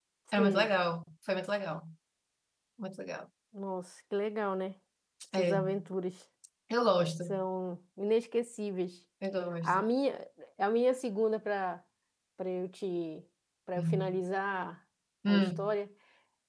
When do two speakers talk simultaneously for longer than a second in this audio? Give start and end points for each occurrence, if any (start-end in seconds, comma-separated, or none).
none